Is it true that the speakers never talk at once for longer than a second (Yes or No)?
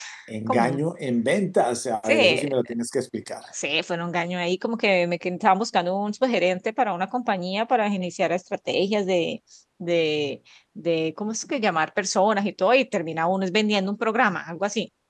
Yes